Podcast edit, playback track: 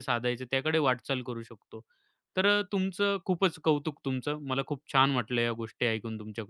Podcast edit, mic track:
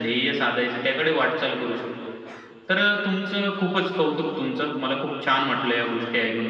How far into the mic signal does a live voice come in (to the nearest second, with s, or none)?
none